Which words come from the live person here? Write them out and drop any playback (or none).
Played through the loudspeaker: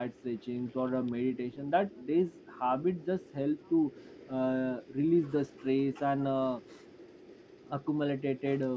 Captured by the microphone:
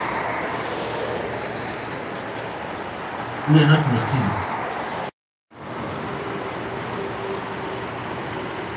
we are not machines.